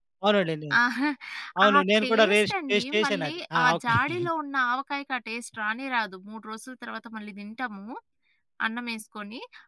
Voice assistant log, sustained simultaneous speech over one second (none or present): present